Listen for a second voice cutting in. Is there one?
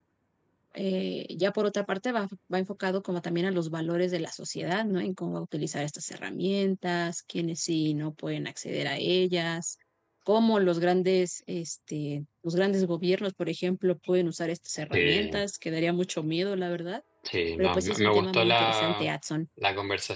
Yes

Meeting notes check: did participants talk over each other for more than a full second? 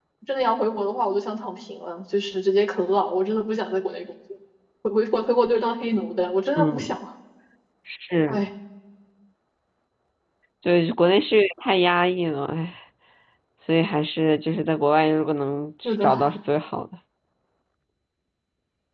No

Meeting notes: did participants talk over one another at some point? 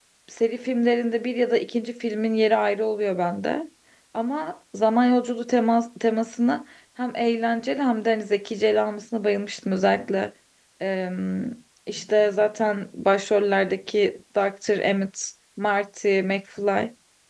No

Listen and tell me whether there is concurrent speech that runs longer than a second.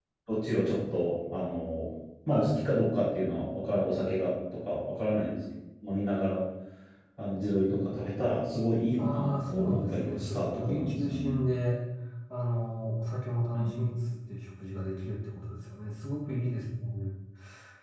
Yes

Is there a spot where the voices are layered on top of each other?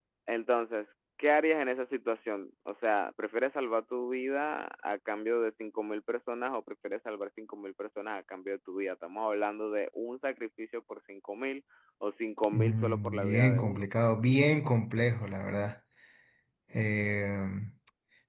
Yes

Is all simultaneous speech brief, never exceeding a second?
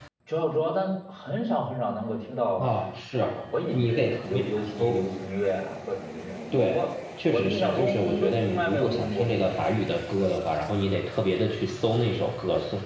No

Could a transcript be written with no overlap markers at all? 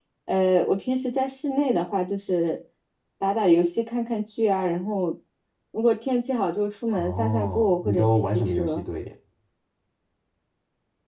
No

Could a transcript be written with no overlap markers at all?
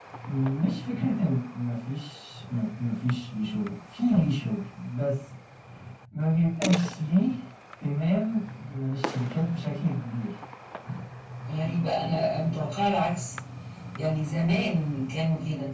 Yes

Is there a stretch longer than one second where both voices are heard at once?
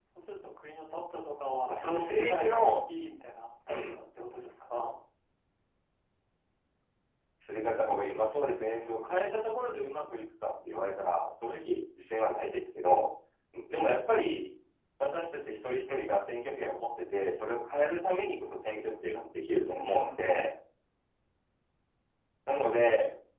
Yes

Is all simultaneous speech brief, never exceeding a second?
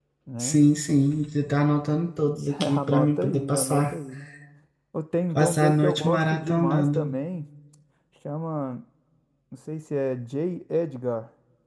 No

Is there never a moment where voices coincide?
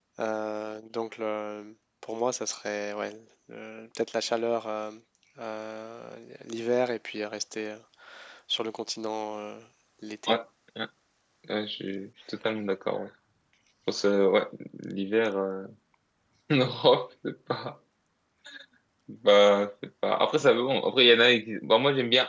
Yes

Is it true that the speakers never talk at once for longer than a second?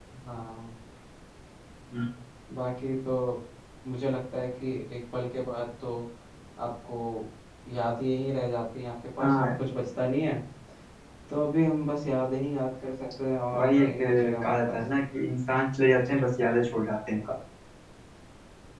No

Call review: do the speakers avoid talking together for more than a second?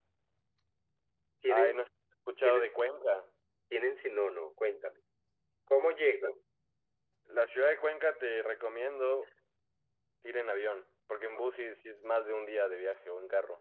Yes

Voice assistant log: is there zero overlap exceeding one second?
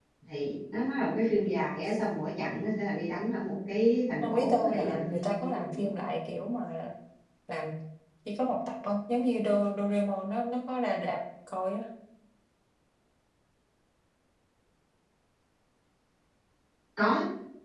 No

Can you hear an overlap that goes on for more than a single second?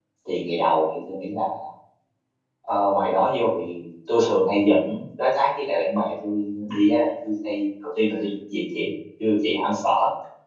No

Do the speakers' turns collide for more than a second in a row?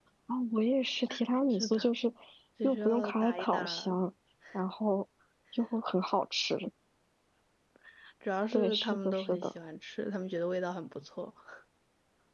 Yes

